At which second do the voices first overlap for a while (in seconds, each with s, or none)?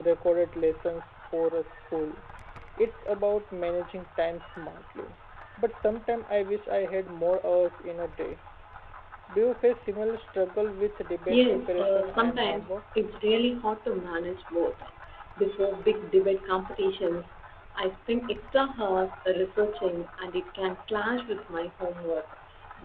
11.2 s